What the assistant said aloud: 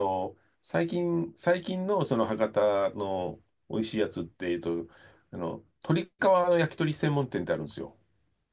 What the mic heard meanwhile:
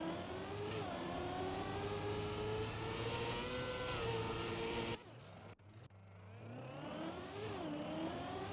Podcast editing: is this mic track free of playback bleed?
Yes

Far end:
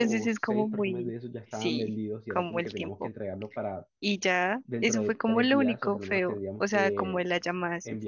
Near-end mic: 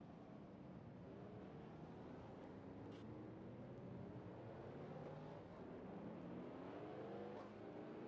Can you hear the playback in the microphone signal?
No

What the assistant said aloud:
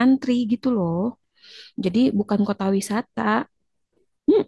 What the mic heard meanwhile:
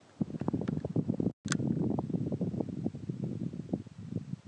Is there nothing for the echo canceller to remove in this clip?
Yes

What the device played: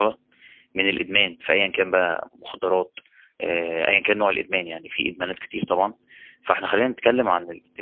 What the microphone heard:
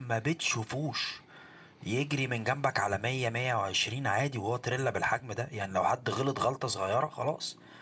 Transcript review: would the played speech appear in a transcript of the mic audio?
No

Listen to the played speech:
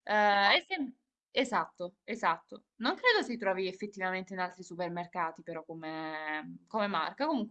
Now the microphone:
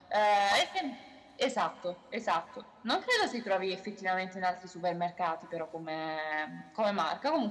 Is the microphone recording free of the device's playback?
No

